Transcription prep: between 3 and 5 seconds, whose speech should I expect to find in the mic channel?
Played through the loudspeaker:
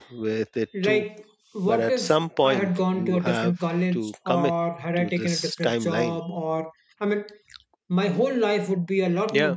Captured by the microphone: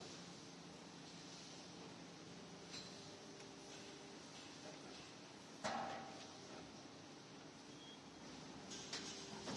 neither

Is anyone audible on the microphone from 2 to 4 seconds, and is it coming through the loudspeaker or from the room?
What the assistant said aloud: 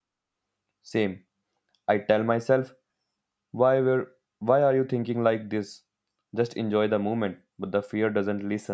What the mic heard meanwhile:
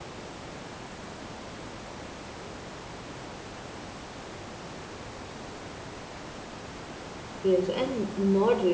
neither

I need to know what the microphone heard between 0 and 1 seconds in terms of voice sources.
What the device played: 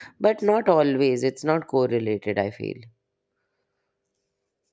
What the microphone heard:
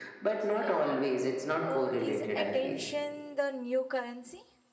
both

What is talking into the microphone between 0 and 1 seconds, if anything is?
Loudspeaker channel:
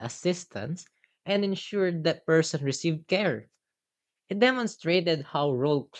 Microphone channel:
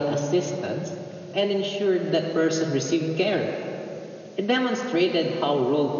echo only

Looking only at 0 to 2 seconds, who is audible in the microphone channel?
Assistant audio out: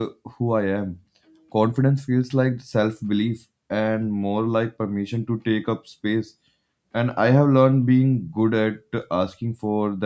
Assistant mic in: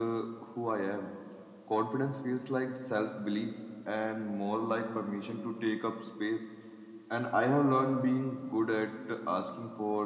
echo only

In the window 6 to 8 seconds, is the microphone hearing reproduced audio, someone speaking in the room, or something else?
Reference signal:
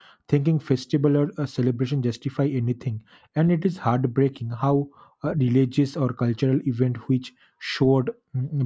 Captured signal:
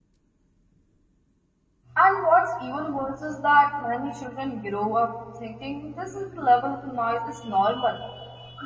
user only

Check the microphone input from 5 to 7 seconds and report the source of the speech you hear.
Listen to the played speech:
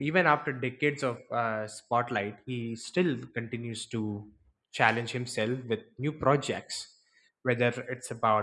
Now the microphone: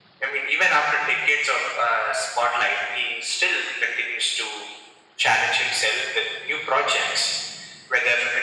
echo only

